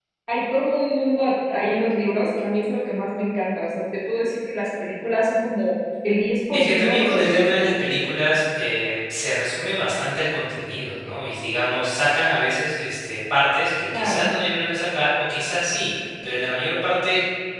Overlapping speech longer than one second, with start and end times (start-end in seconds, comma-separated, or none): 6.5-7.9